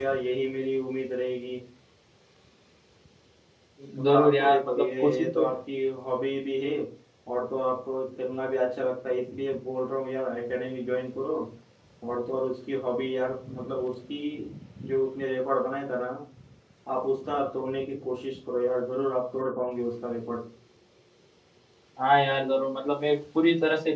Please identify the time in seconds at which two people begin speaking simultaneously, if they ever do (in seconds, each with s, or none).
4.0 s